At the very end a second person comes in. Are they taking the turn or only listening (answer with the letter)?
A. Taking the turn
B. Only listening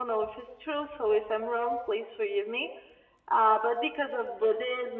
B